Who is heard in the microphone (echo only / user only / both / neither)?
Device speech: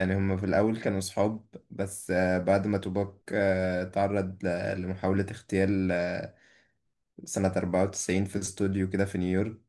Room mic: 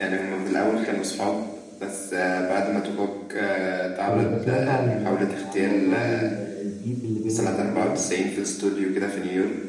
both